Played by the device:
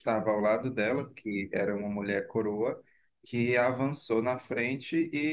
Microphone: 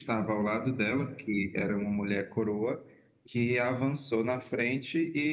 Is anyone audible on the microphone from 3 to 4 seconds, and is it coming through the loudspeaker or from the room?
echo only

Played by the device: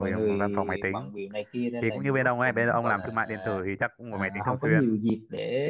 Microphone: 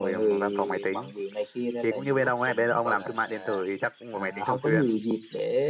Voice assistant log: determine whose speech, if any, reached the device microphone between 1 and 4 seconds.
echo only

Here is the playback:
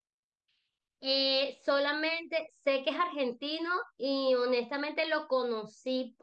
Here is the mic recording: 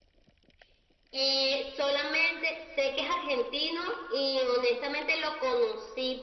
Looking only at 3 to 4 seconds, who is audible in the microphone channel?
echo only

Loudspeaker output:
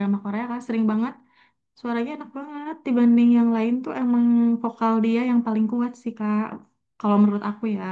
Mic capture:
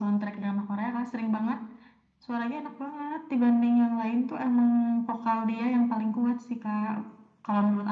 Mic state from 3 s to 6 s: echo only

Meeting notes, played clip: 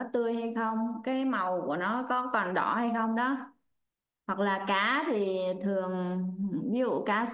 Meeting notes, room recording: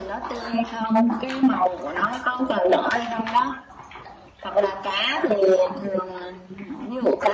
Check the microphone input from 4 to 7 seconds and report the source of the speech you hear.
echo only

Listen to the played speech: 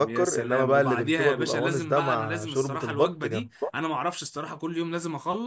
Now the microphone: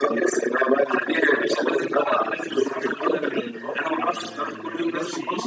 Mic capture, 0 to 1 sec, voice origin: echo only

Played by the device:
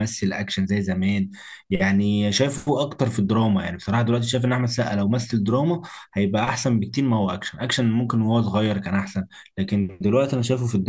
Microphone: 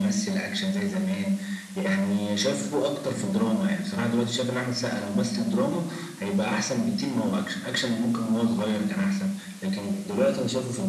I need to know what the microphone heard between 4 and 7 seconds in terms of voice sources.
echo only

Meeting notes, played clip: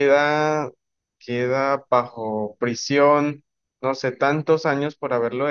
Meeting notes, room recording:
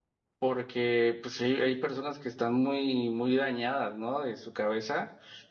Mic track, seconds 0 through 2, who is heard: user only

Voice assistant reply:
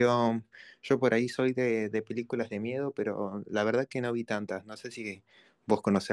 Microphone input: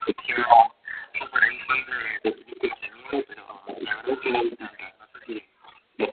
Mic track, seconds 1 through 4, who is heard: echo only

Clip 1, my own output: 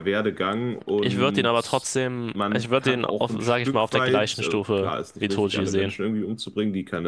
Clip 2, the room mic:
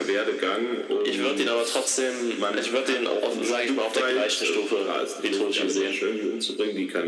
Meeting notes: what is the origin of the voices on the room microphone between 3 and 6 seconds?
echo only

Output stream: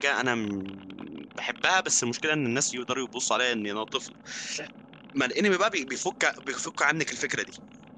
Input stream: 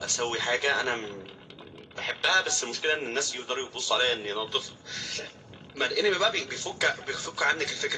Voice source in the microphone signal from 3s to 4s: echo only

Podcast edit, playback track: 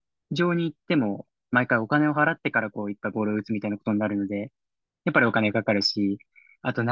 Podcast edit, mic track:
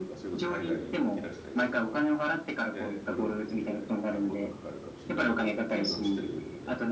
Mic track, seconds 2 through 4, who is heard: both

